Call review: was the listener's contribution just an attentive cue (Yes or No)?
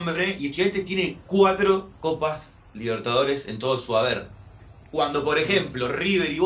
Yes